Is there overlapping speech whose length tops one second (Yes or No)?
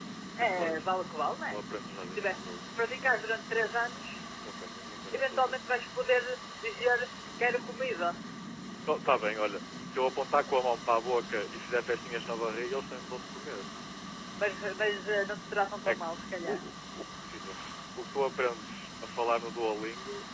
Yes